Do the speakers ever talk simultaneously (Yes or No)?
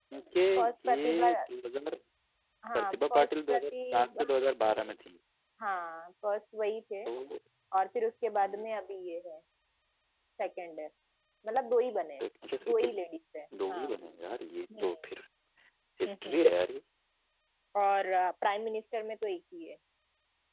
Yes